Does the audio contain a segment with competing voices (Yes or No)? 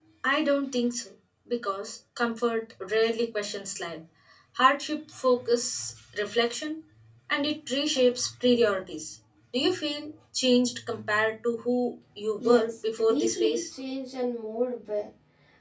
Yes